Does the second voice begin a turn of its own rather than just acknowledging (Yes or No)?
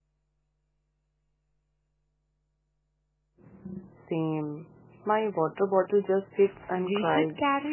Yes